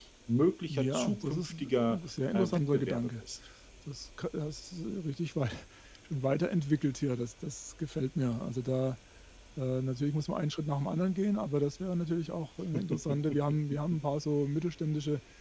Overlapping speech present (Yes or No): Yes